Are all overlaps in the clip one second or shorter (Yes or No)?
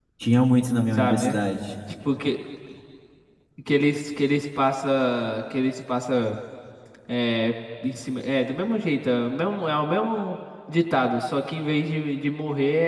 Yes